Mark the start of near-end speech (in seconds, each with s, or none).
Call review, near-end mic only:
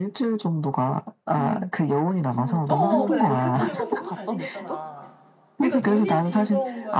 2.7 s